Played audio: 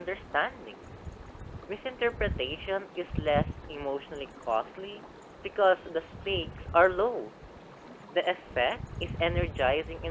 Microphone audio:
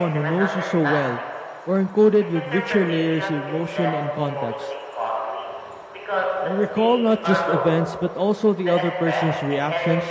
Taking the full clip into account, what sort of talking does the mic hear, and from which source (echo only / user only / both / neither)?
both